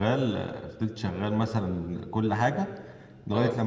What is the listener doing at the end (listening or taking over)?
listening